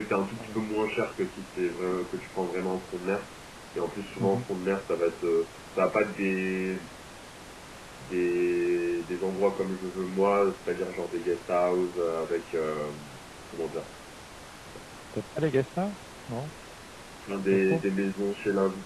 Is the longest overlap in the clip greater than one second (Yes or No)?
No